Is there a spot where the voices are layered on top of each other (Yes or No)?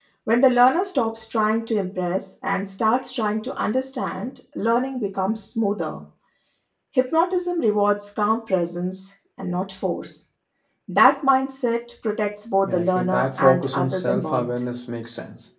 Yes